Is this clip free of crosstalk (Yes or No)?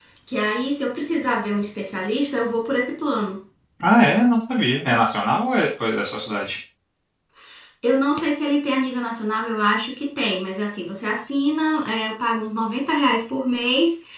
Yes